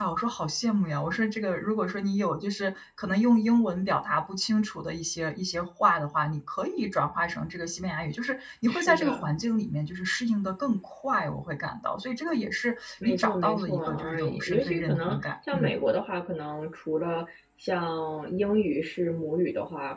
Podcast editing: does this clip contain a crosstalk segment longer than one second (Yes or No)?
Yes